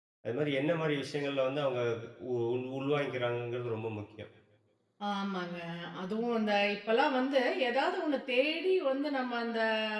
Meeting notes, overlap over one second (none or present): none